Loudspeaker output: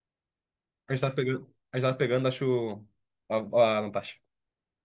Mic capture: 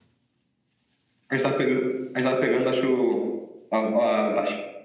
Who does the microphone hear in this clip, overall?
echo only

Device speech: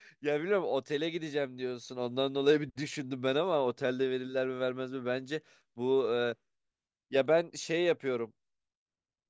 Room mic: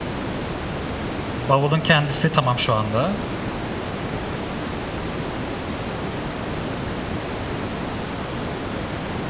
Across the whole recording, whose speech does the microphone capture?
user only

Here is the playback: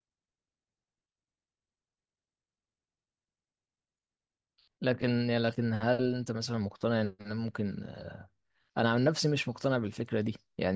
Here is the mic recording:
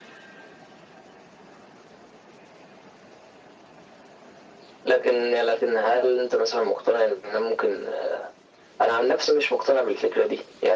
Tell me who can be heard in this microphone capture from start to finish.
echo only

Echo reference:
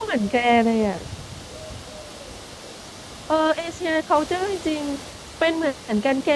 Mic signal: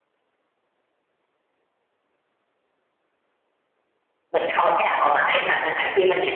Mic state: user only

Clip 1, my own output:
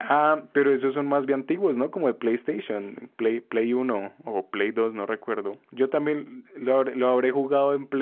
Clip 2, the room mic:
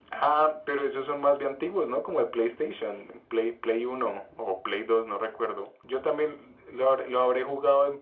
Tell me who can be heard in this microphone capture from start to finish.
echo only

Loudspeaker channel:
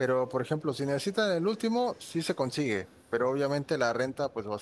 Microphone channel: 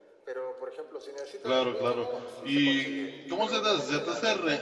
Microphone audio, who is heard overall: both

